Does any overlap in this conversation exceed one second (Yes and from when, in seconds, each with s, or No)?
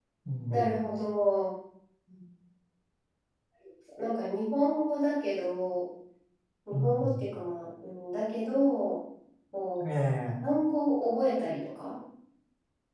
No